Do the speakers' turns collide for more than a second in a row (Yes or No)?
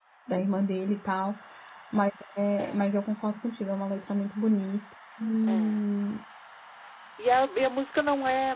No